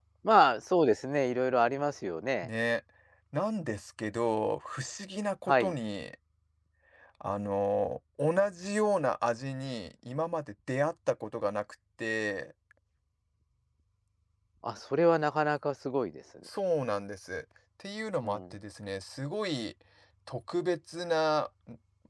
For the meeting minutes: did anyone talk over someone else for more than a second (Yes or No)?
No